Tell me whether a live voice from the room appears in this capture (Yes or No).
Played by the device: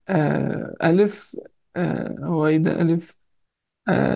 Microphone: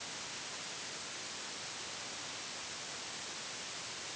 No